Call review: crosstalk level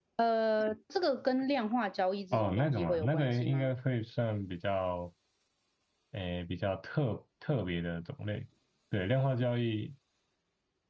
present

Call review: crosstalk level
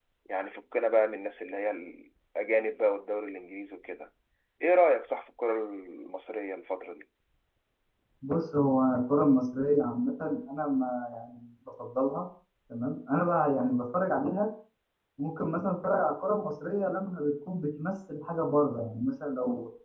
none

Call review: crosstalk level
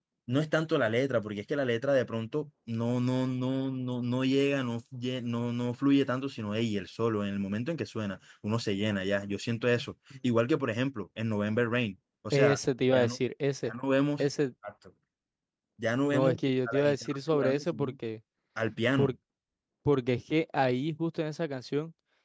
present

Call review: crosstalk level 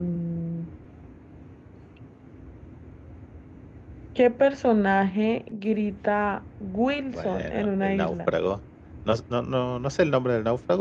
present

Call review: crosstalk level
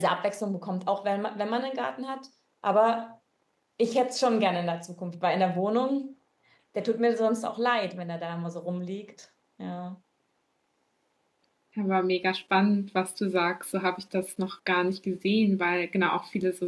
none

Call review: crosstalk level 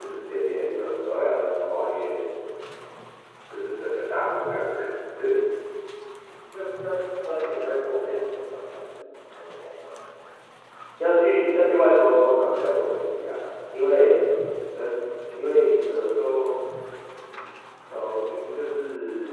none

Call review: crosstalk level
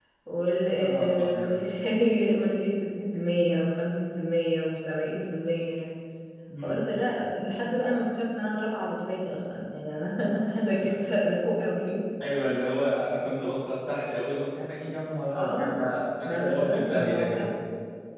present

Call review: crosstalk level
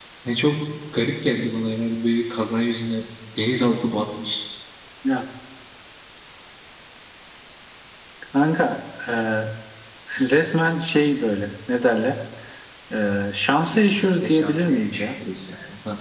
present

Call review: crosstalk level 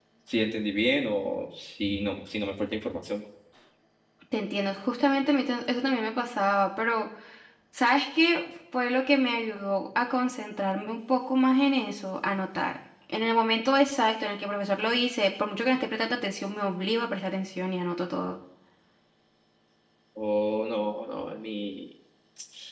none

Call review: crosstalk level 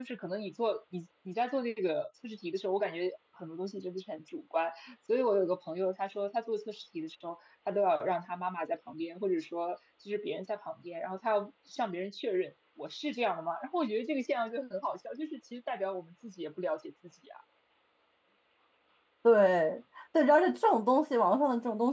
none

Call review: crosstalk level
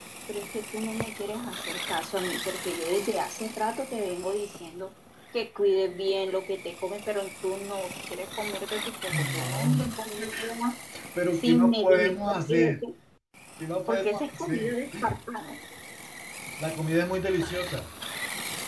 present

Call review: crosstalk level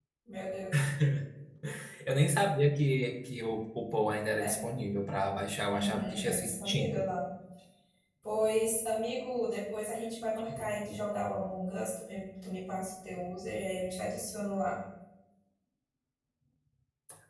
present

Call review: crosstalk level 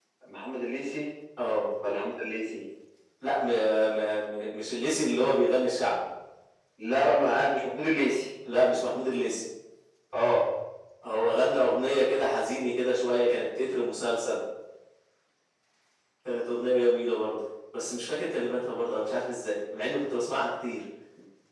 none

